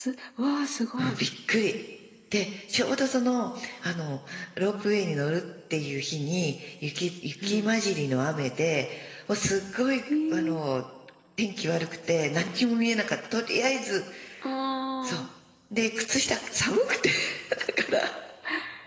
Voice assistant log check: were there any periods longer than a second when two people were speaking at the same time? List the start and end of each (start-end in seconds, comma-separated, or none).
none